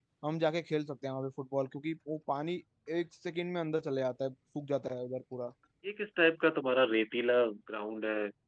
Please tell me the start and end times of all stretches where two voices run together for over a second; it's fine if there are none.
none

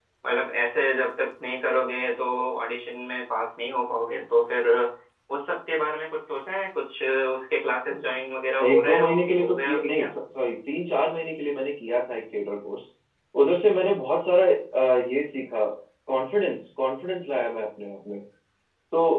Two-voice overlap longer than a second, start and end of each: 8.6-10.1

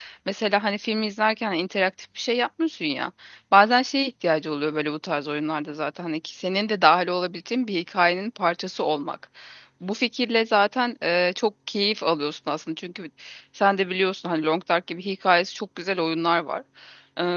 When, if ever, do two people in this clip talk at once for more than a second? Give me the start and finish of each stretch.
none

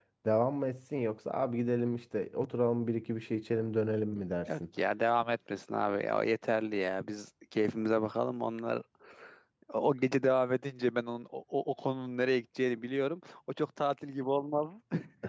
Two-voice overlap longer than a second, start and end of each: none

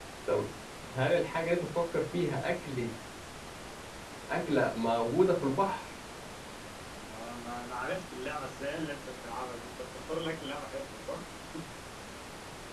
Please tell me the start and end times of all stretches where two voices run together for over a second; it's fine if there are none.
none

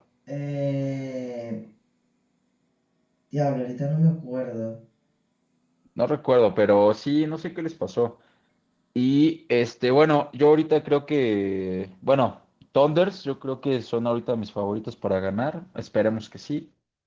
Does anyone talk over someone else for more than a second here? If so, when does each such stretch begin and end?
none

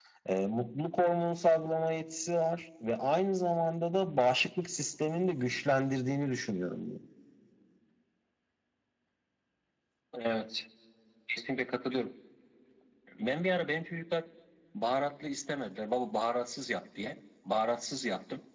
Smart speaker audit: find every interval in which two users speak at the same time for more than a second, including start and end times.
none

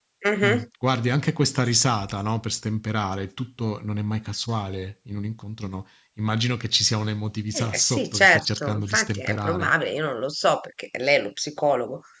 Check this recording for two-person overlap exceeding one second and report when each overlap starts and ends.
7.5-9.7

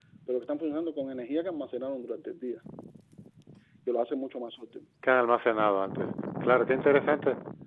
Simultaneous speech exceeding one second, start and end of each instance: none

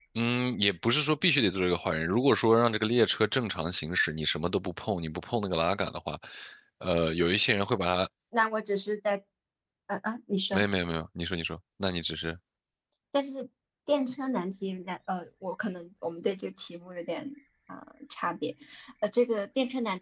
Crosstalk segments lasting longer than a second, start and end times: none

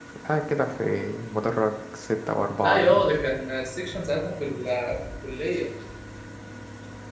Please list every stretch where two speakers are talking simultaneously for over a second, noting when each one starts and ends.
none

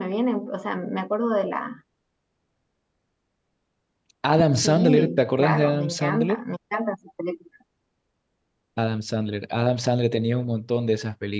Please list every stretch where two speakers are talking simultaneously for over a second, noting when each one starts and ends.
4.6-6.4

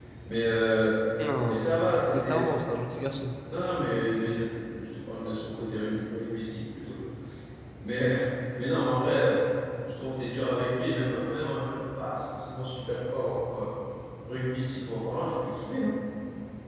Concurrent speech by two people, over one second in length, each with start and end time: none

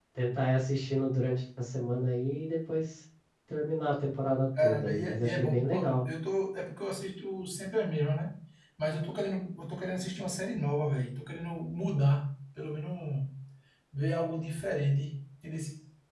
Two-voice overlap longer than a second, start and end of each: 4.6-6.0

